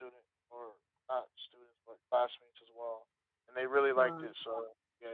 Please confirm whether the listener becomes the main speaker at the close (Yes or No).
No